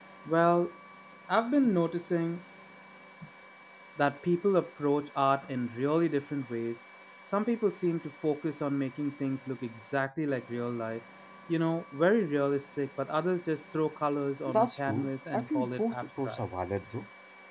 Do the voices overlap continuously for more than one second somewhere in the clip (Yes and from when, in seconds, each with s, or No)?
Yes, from 14.5 s